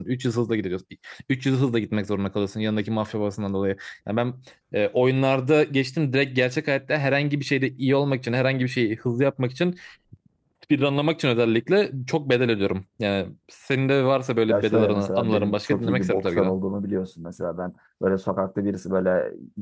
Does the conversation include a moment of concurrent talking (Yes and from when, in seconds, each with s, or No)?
Yes, from 14.5 s